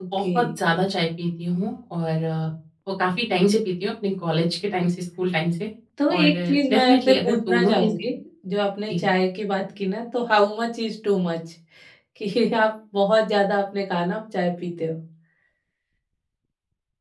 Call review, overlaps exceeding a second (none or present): present